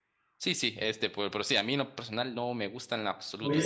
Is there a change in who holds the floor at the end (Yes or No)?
Yes